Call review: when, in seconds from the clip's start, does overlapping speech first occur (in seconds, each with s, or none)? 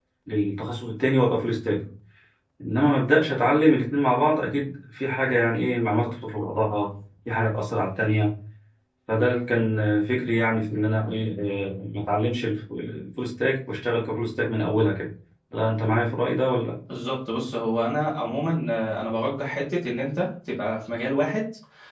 none